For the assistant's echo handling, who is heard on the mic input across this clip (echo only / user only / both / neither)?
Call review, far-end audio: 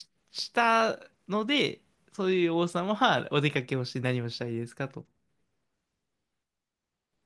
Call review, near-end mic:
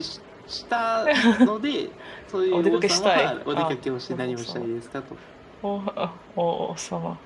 both